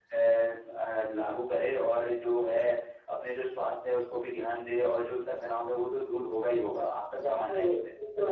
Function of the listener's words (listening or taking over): taking over